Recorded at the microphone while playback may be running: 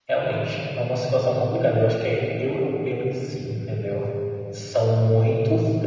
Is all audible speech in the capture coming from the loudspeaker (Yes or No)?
No